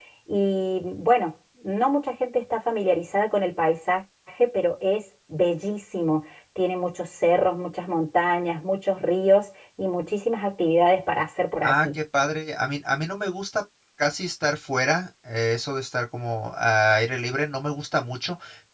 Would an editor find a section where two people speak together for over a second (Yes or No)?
No